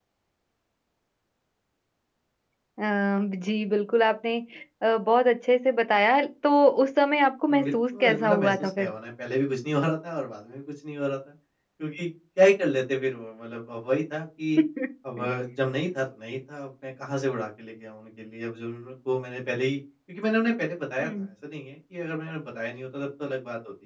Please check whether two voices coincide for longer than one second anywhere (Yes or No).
Yes